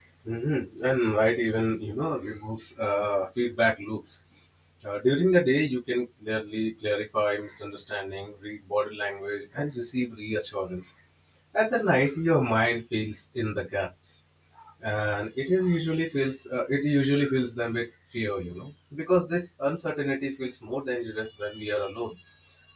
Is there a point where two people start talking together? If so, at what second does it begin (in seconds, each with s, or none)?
none